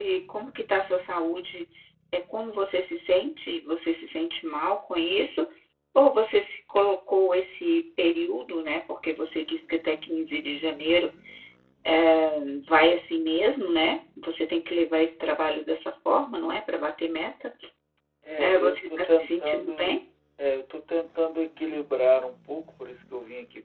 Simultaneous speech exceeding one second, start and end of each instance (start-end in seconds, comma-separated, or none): 18.4-20.0